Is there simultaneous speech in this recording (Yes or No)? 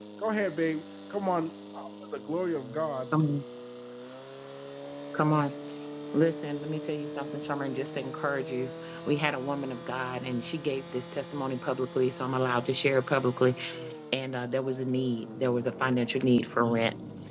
No